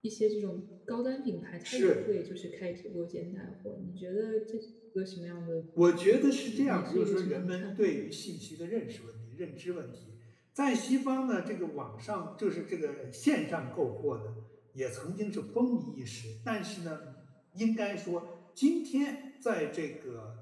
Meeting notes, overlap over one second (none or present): present